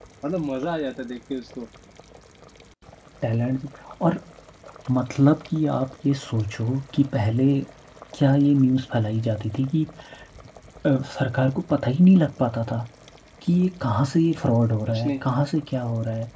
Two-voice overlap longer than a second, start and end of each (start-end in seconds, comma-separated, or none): none